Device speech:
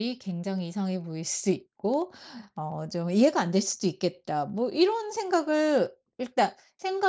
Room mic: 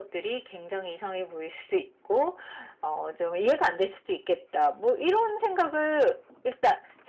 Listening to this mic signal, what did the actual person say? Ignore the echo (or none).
none